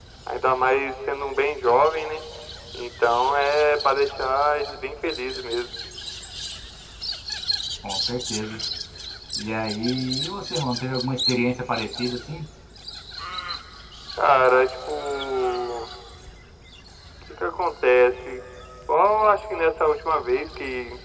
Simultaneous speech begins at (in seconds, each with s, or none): none